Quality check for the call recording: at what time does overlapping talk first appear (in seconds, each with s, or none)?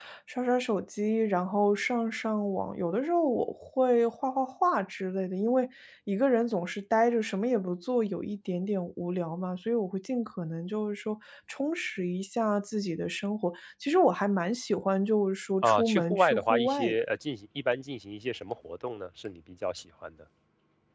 15.6 s